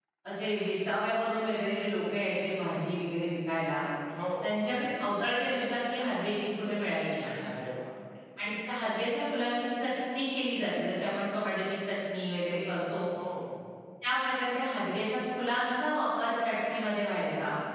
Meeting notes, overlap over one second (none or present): none